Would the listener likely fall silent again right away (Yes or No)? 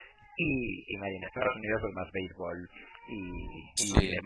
Yes